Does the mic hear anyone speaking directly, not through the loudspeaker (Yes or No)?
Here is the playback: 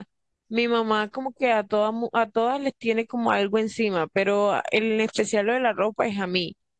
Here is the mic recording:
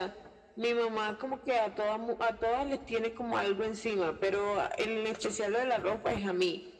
No